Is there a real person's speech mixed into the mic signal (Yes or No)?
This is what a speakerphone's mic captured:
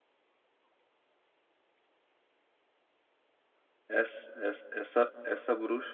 Yes